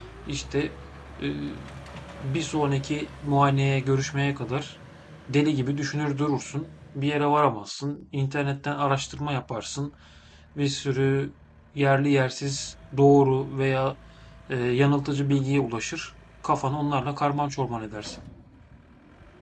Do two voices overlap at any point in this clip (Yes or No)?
No